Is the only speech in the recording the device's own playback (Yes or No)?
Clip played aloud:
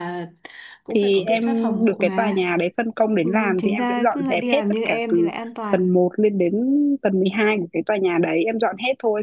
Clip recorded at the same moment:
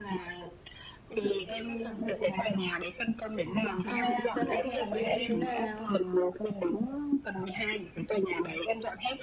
No